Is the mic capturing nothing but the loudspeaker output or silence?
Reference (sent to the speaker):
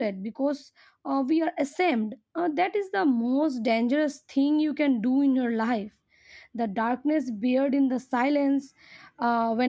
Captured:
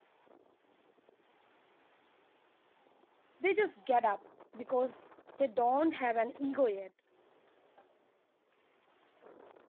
No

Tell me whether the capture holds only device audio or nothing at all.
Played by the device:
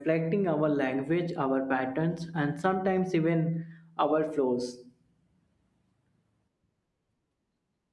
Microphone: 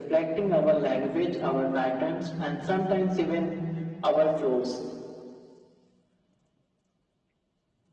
Yes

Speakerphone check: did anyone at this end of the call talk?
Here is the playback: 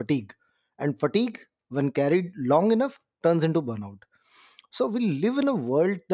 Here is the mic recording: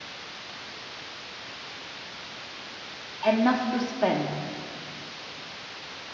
Yes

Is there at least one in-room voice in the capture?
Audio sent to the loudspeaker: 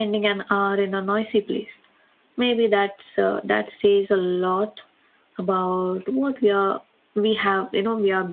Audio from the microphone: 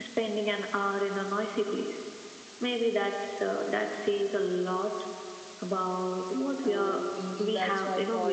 Yes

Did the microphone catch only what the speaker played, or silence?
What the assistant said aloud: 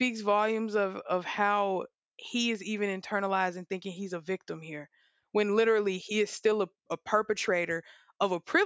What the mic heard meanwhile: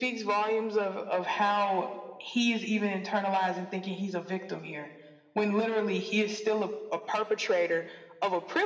Yes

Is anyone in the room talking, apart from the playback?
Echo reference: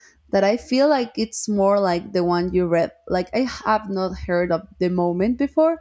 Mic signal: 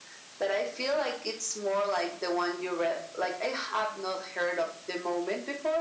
No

